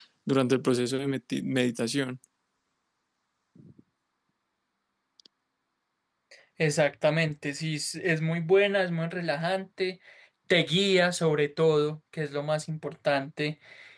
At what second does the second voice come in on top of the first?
none

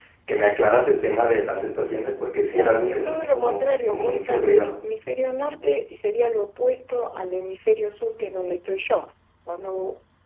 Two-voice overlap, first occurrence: 2.5 s

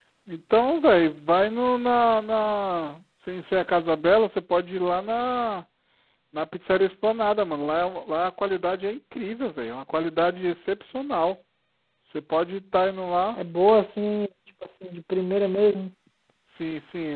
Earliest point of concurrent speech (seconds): none

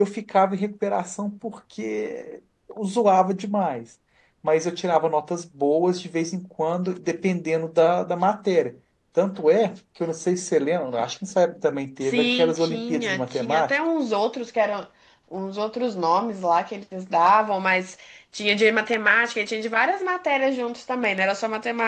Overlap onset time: 12.0 s

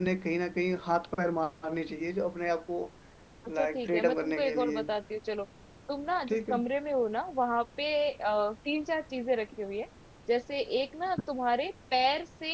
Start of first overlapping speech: 3.6 s

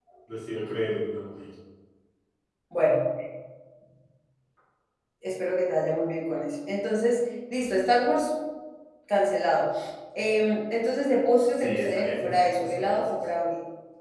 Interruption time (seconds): 11.6 s

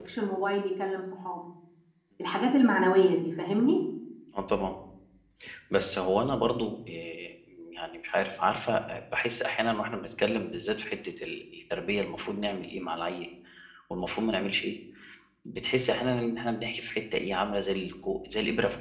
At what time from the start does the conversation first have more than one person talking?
none

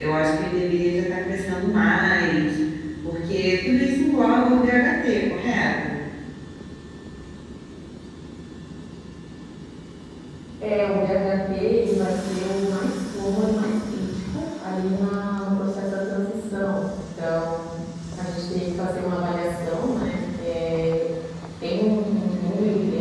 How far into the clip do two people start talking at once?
none

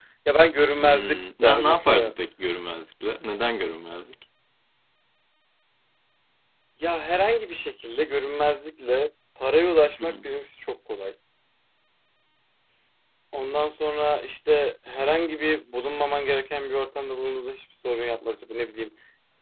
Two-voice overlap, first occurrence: 0.8 s

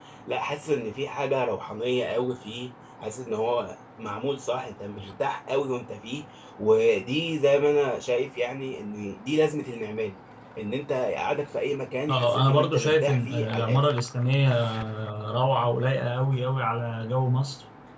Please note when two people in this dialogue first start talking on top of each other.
12.1 s

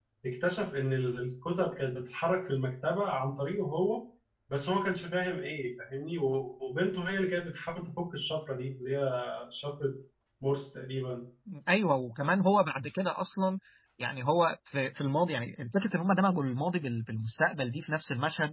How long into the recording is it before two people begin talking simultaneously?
none

